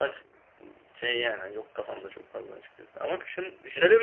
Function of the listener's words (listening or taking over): taking over